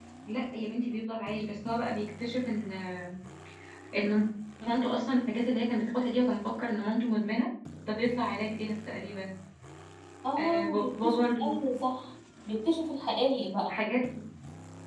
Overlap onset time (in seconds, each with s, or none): 10.4 s